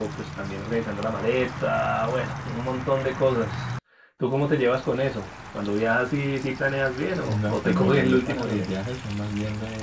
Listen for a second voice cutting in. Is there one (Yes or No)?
Yes